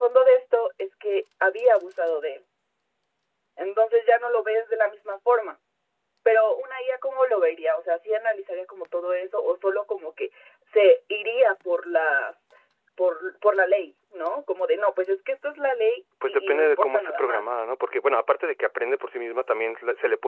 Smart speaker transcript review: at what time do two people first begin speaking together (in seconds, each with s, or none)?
16.2 s